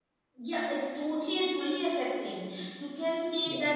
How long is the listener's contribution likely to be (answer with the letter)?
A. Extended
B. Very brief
B